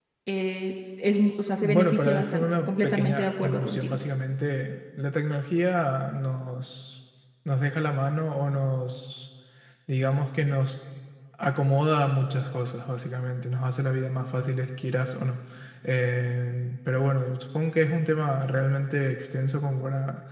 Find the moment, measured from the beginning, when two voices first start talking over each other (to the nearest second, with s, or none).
2 s